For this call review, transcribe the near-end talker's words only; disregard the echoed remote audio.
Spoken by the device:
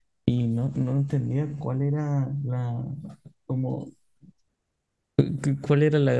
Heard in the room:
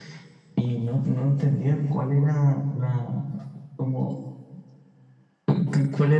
none

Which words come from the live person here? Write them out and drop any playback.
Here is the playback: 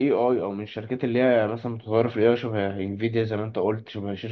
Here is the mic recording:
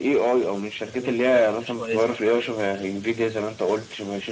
بيستخدموه في حاجات مش كويسه

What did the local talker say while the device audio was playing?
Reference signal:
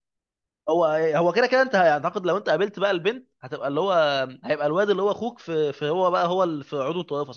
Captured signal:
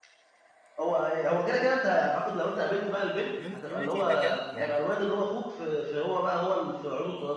يونيتي ده كان يعني

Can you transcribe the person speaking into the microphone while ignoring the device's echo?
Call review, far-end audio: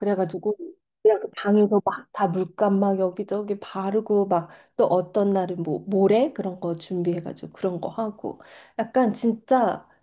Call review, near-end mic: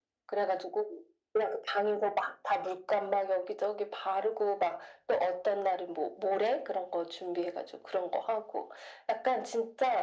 none

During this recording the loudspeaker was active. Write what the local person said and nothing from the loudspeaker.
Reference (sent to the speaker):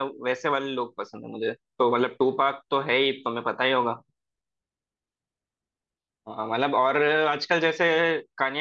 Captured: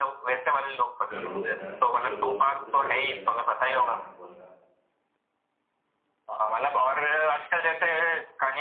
करोड़ों को यार सुपर बोल तो सबसे बड़ा इवेंट है अमेरिकन फुटबॉल का

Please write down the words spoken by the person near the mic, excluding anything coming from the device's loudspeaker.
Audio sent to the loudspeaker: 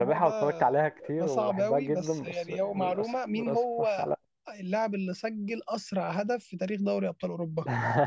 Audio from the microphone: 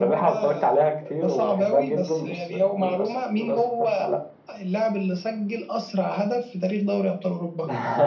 none

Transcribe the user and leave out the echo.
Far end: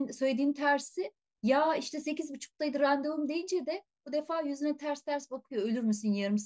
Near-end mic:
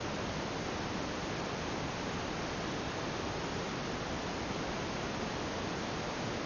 none

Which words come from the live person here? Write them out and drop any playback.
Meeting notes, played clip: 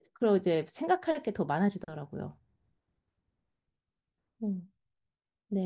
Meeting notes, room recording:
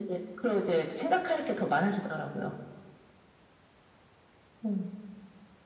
none

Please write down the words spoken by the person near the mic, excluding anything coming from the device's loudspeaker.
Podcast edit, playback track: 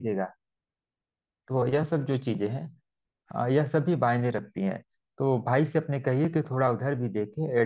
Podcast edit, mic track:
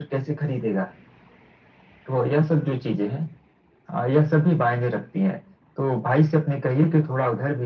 none

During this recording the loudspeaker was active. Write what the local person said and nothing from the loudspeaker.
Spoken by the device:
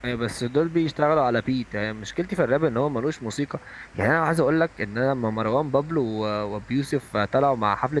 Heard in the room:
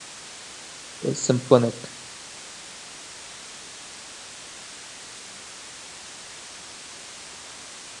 سيمفونيك

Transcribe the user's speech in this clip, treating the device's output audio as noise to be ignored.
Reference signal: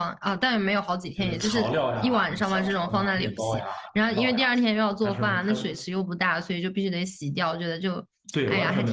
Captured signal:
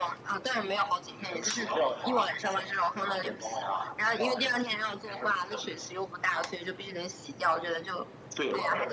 none

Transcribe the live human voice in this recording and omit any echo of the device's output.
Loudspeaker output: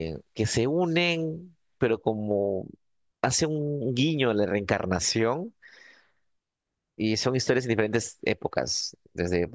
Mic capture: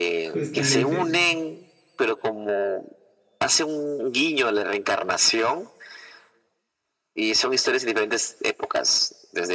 justamente.

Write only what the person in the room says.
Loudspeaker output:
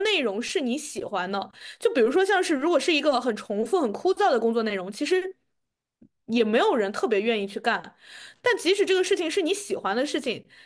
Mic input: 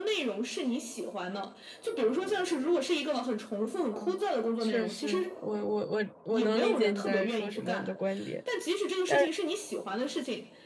嗯确实，我我我我能理解你在说什么，你的观点。但

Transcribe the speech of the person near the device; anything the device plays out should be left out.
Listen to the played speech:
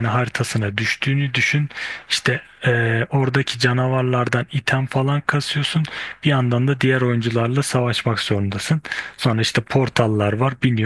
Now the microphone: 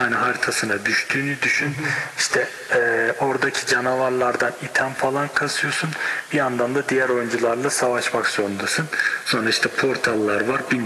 Hı hı.

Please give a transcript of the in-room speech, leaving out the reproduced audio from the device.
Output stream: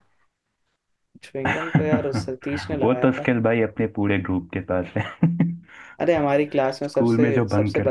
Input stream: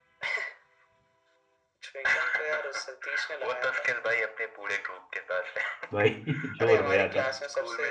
भाई जोर रोया था

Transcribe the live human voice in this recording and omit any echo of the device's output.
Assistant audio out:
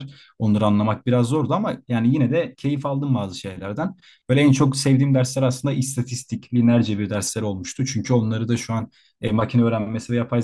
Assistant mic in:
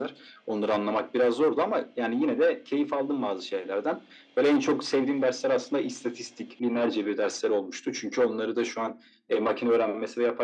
none

